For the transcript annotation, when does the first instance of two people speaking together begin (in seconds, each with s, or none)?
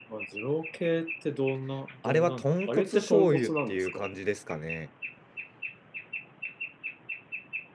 2.0 s